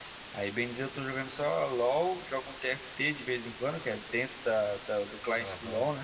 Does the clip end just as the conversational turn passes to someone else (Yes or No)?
Yes